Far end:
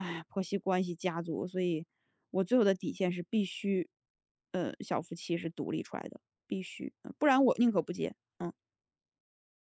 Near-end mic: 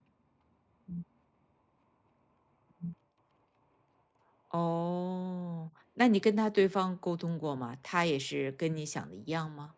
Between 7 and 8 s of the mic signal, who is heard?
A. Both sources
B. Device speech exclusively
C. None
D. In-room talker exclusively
D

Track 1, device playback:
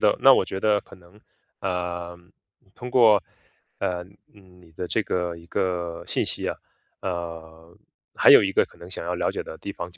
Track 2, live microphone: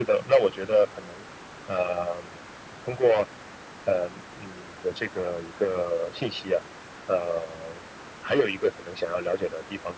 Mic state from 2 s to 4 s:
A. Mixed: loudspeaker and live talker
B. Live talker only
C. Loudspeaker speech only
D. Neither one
C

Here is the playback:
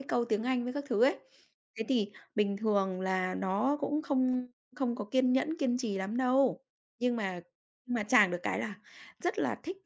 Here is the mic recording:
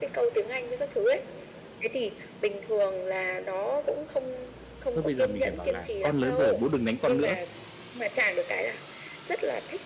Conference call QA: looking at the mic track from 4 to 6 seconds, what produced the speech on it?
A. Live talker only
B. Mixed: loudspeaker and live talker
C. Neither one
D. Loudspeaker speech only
B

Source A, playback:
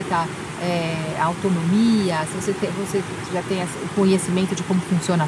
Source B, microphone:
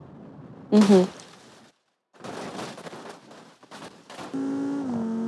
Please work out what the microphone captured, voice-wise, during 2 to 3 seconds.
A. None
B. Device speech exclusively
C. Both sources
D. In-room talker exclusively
A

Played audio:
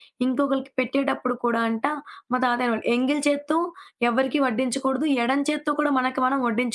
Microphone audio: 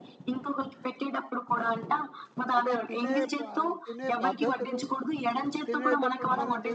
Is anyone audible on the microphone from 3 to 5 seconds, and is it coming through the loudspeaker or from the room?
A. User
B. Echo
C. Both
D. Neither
C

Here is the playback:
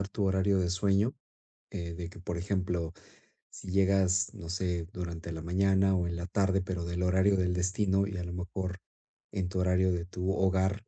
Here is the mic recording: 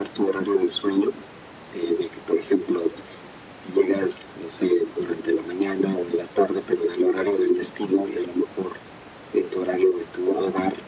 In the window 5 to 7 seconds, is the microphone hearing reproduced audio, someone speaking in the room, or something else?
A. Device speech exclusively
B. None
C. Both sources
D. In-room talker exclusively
A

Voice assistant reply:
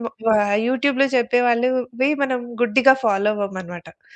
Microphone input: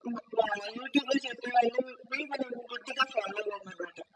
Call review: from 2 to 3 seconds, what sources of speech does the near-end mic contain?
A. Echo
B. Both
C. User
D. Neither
A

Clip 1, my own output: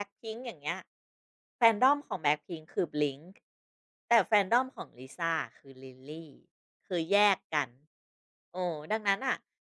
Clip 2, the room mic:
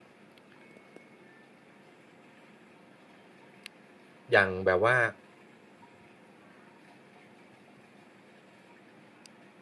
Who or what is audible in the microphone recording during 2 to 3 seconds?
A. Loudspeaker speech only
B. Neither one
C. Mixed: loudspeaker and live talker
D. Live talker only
B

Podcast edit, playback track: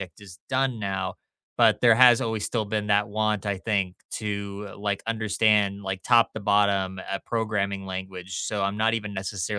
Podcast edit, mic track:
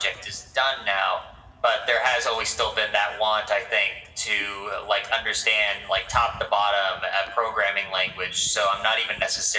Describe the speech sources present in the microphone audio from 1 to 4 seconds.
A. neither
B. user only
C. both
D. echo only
D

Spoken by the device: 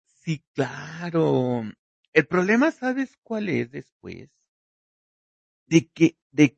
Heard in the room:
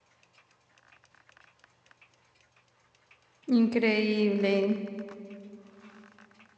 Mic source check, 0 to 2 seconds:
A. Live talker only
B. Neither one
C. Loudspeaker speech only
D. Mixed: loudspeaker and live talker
B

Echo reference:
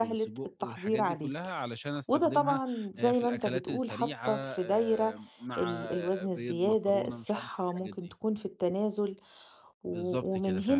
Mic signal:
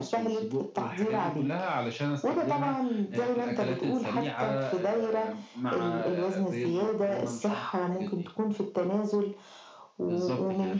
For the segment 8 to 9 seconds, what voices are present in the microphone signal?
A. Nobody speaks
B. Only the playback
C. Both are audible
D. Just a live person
B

